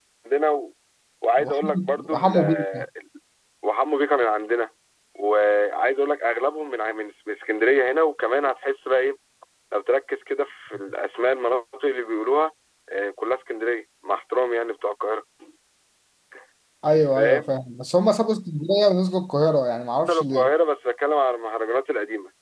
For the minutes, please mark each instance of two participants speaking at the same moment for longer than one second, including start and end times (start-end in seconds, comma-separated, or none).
1.4-2.8